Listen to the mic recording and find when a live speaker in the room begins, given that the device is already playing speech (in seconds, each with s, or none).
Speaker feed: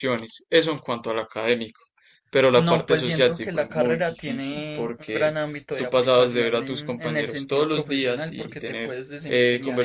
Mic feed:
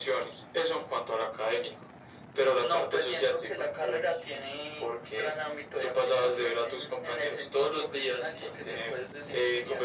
none